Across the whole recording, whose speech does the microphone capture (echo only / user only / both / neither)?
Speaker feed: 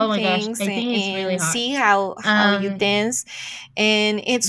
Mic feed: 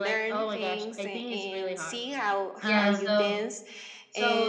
both